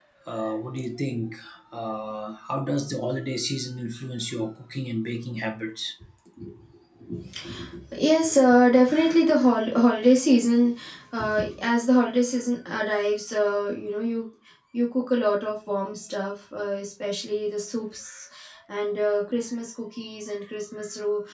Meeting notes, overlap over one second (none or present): none